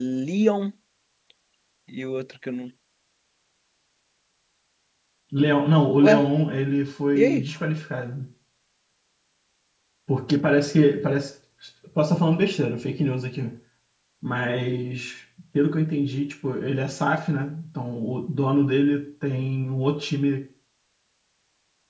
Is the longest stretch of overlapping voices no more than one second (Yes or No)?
Yes